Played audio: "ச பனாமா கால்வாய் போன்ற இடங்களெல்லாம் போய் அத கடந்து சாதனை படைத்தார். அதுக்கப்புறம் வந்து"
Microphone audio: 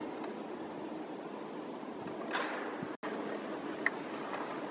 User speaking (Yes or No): No